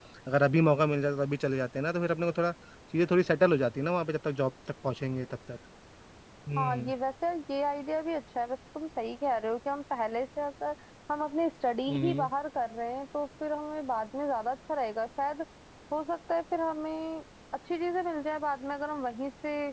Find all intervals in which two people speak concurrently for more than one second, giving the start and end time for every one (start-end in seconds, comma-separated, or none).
none